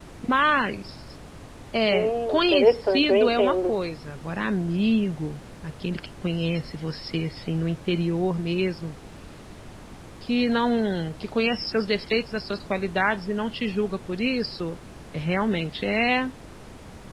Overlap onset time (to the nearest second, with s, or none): 2 s